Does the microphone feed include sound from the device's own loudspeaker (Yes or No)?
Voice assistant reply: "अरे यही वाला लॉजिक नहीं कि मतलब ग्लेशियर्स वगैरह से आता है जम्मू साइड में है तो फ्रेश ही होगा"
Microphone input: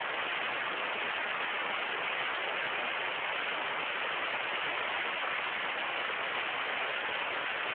No